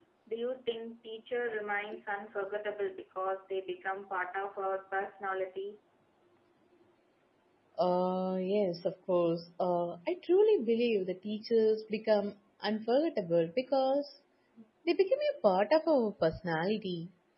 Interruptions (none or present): none